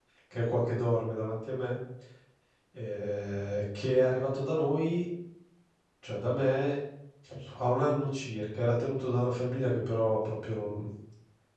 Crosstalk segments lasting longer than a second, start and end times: none

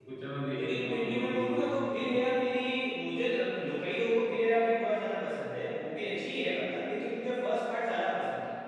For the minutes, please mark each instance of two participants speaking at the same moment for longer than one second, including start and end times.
0.5-2.1

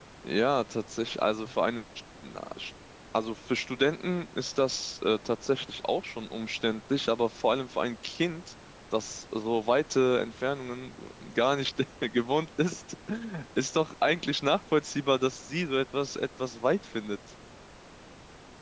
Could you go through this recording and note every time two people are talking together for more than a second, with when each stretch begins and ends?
none

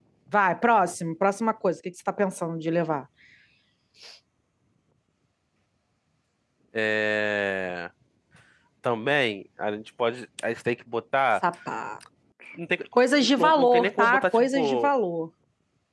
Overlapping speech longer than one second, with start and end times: 13.4-14.9

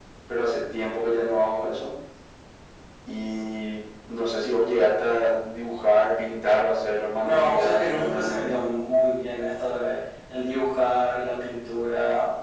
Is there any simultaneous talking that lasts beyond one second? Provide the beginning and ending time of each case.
7.2-8.6

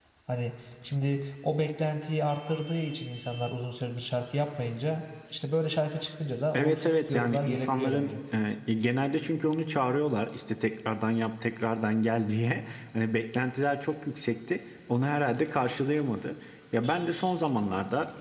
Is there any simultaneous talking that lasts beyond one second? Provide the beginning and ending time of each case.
6.5-8.1

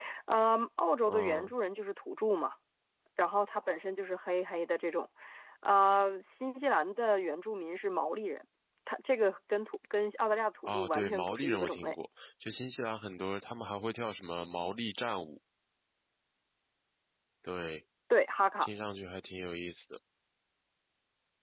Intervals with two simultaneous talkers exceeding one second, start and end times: 10.6-11.9

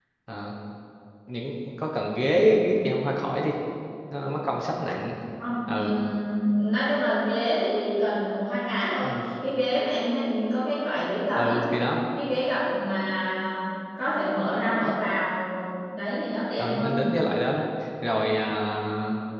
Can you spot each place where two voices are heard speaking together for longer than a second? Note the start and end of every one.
none

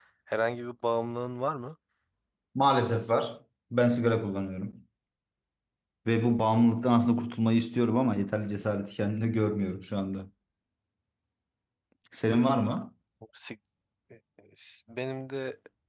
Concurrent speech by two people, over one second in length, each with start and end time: none

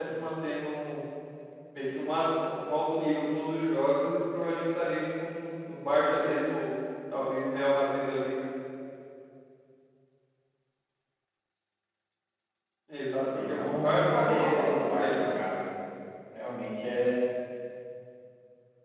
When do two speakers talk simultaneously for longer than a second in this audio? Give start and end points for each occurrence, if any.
13.5-15.3

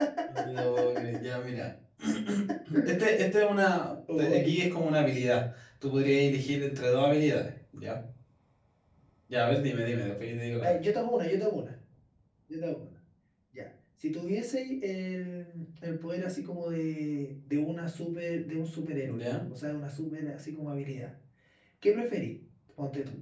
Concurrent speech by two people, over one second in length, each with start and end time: none

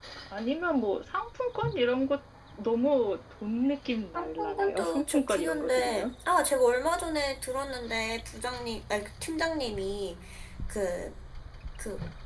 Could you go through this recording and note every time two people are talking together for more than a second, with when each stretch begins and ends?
4.2-6.1

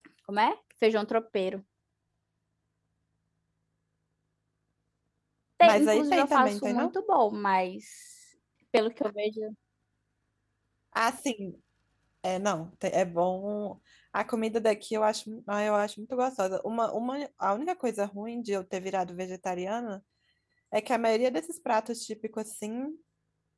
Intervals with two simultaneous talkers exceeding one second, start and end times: 5.6-6.9

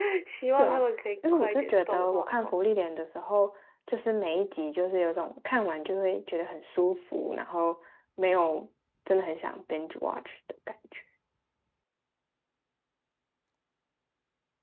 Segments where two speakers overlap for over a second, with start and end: 1.3-2.5

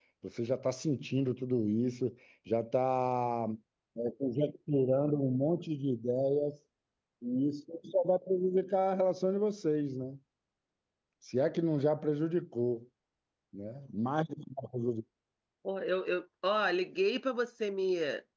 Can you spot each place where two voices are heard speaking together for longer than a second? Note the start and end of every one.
none

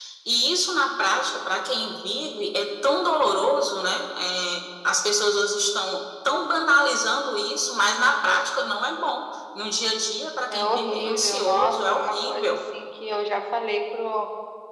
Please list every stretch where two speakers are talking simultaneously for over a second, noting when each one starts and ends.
10.5-12.6

